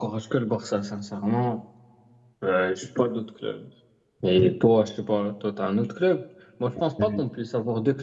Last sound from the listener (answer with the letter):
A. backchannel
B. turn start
A